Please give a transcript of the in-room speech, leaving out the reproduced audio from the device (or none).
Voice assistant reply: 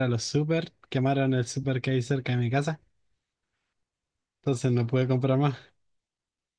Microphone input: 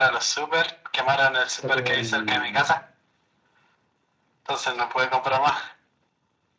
está como el...